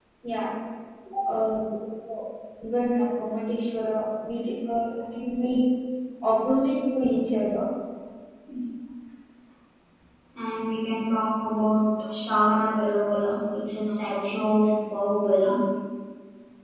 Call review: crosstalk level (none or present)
none